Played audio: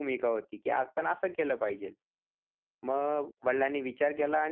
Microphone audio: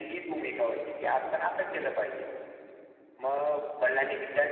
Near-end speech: none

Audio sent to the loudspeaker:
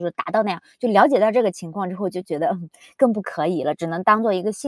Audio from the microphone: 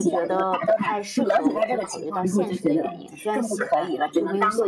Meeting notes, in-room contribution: present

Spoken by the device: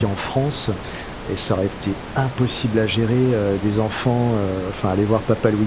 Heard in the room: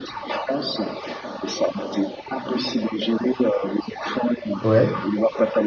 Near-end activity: present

